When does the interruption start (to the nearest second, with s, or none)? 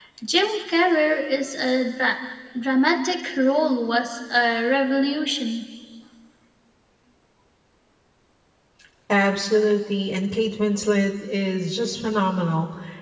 none